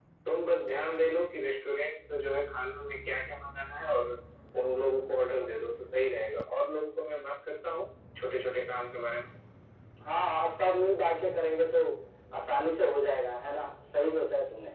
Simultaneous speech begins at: none

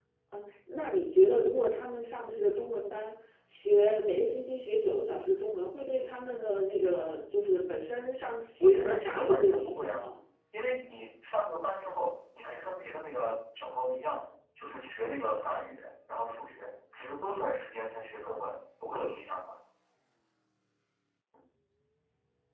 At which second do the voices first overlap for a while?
8.6 s

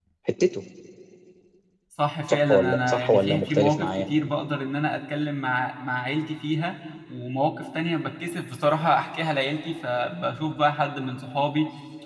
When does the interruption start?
2.3 s

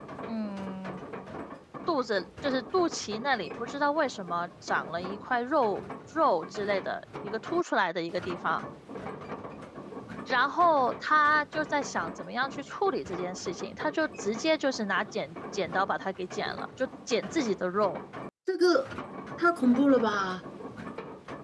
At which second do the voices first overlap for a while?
none

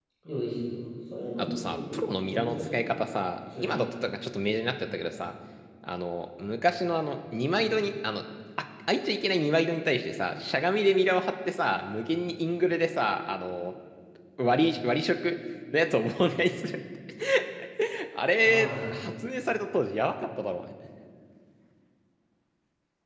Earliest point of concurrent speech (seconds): 1.4 s

